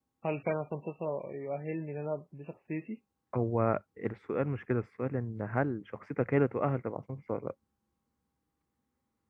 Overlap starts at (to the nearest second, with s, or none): none